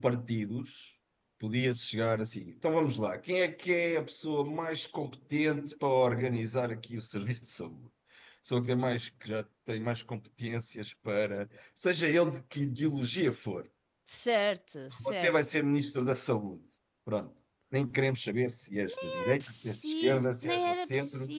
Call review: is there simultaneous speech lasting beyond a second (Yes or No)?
Yes